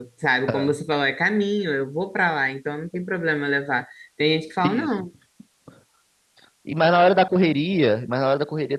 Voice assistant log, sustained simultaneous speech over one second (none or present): none